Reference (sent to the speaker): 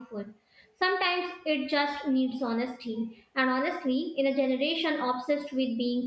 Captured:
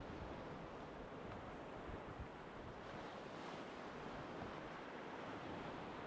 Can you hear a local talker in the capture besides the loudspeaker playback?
No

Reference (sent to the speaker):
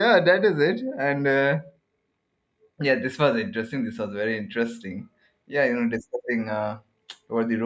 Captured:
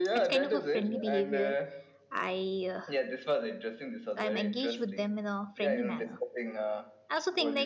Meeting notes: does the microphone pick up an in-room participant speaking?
Yes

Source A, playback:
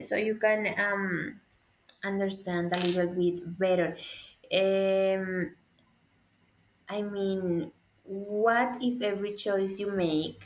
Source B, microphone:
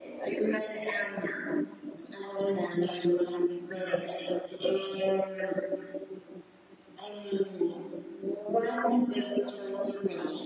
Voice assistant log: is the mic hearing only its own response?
Yes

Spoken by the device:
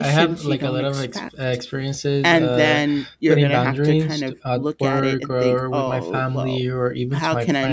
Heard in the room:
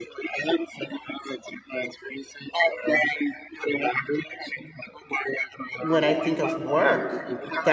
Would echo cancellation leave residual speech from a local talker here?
Yes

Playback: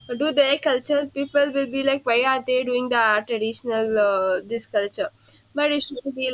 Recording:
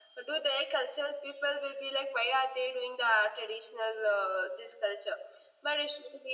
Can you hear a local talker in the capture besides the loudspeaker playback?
No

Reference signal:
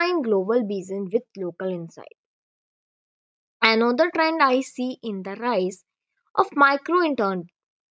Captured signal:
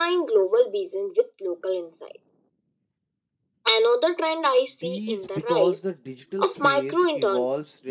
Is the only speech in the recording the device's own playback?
No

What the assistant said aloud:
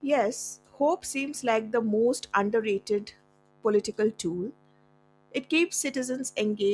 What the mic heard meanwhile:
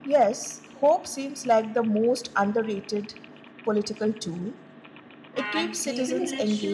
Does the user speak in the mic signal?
Yes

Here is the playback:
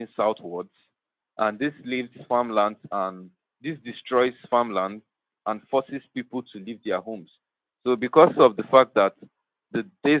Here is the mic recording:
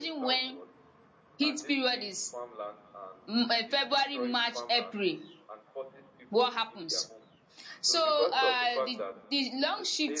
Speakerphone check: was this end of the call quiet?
No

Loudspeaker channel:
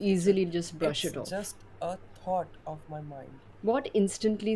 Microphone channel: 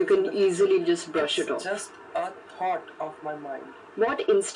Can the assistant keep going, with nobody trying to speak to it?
Yes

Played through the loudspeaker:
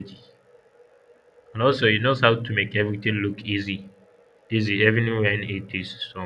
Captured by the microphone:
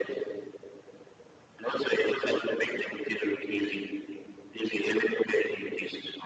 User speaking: No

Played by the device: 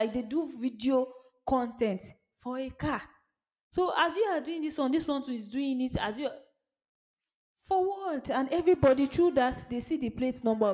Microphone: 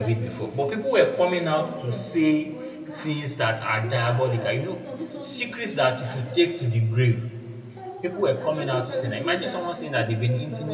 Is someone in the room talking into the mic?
Yes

